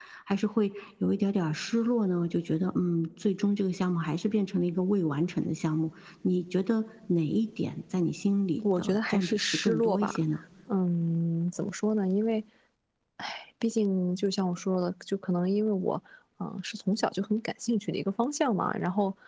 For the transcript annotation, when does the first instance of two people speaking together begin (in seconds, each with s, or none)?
8.6 s